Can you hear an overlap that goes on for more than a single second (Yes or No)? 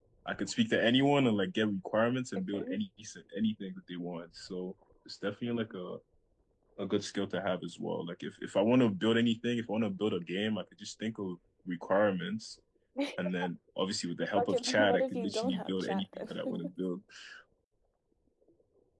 Yes